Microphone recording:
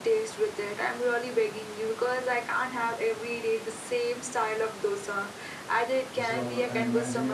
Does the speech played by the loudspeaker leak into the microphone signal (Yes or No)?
Yes